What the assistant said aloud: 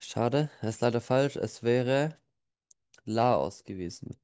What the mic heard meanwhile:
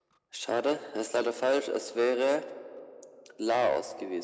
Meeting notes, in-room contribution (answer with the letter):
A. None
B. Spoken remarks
A